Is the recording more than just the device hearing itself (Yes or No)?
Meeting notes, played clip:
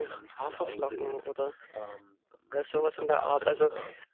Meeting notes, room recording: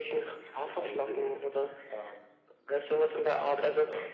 No